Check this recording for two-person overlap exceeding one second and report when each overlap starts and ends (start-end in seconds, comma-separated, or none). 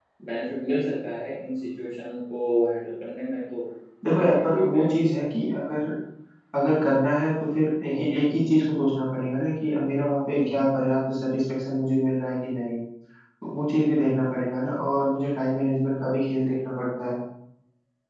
4.1-5.5